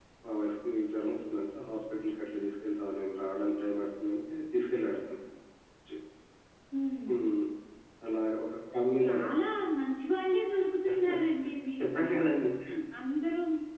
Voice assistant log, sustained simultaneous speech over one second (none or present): none